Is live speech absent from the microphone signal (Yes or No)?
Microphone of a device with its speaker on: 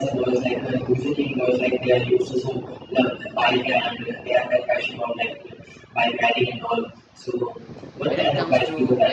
No